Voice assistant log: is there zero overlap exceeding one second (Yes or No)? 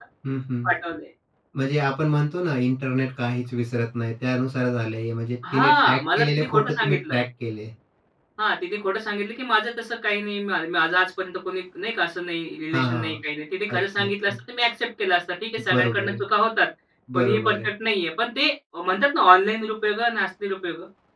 No